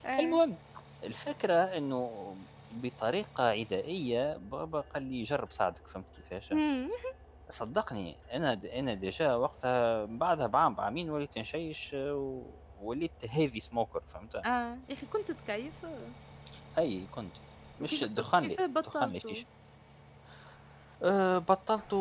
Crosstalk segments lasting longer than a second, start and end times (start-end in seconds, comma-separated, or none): 17.8-19.4